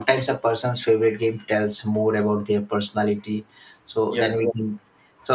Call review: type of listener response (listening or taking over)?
listening